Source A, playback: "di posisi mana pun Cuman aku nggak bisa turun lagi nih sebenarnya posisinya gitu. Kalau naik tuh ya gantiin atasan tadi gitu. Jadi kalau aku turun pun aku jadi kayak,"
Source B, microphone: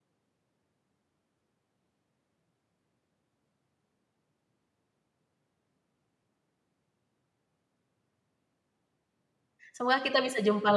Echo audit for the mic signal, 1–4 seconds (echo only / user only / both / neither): neither